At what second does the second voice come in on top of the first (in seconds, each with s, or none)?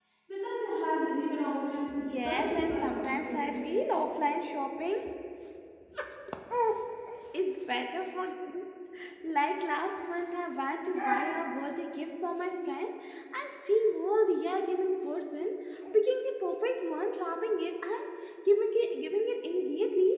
2.0 s